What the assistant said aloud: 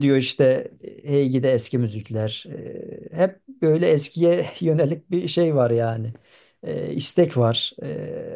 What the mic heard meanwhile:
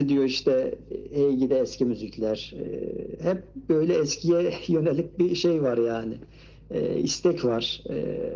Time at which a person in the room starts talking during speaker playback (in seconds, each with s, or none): none